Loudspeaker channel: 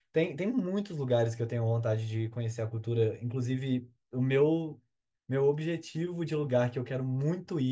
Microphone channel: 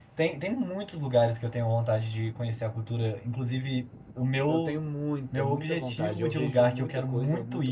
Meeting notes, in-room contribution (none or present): present